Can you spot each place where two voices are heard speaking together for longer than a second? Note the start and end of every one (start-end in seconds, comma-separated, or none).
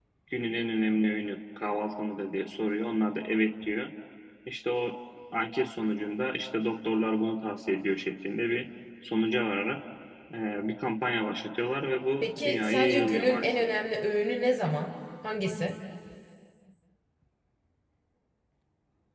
12.2-13.5